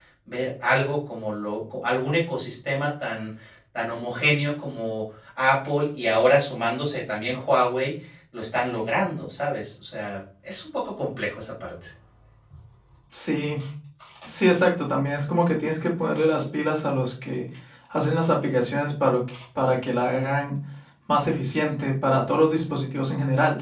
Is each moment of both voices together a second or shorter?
Yes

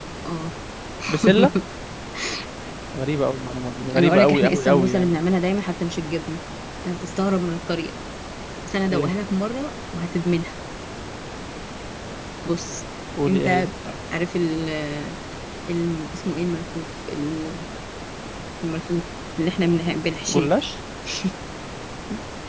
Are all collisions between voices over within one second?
No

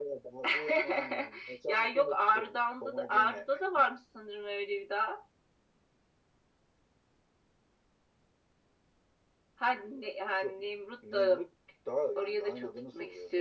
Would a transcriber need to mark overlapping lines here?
Yes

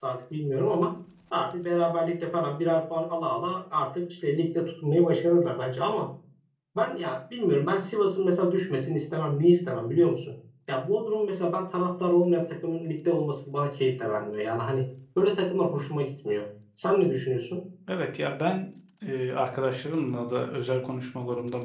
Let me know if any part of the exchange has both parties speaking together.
No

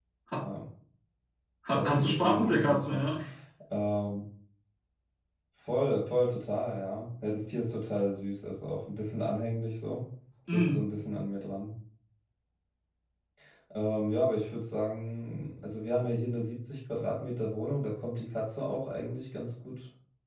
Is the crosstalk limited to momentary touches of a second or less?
No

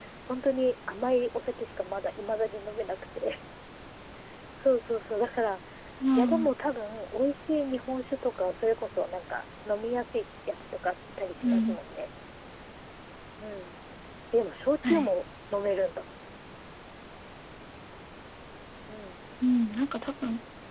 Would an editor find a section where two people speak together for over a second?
No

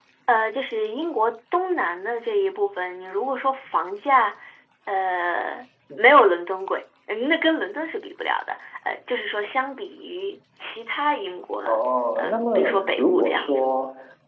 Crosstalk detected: Yes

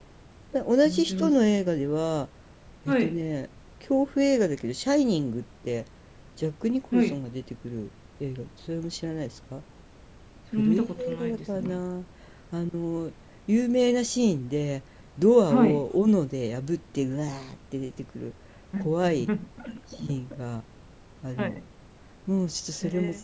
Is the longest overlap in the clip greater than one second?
Yes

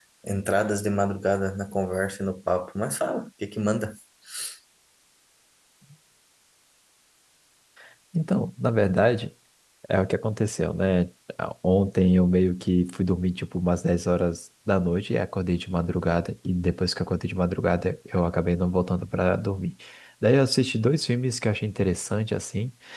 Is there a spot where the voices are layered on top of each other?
No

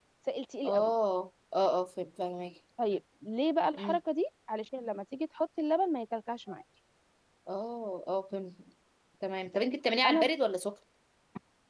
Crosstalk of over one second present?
No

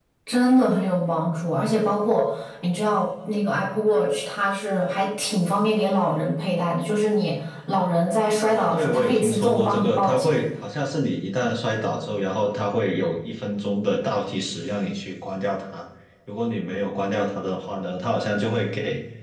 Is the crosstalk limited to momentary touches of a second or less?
No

